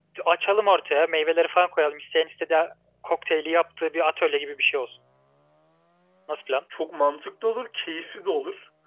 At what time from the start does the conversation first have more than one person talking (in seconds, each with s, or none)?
none